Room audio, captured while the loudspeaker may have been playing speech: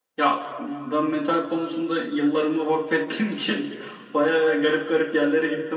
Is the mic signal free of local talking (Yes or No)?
Yes